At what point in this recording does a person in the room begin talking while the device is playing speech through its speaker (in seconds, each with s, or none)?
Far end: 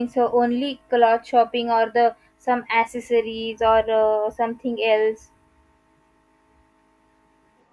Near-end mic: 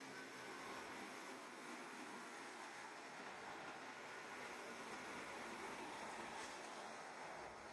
none